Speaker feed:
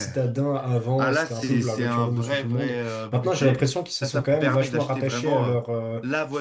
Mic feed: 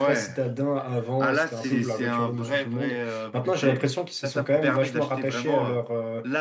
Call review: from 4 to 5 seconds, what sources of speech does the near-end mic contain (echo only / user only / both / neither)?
echo only